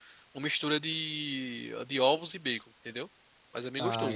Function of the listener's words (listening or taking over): taking over